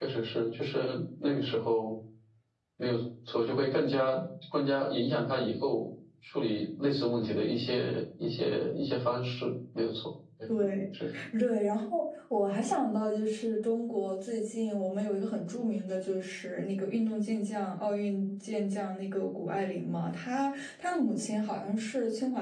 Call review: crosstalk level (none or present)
none